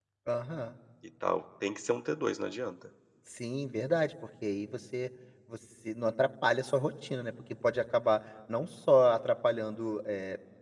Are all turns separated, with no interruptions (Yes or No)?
Yes